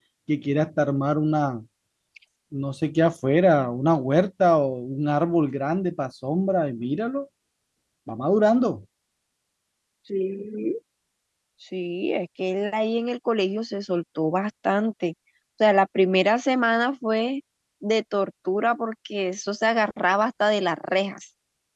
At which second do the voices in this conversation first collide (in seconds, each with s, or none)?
none